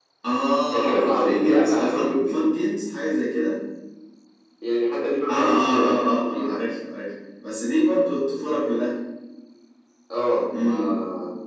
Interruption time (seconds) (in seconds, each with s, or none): 0.7 s